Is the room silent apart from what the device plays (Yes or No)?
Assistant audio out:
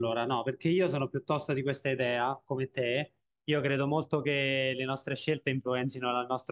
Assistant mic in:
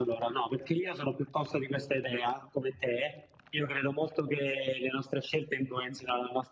Yes